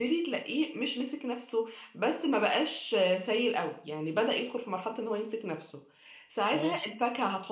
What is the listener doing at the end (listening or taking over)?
listening